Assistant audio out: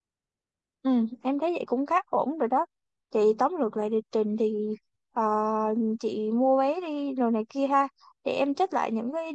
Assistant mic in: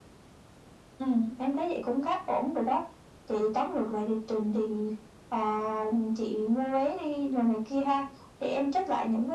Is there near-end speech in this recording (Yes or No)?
No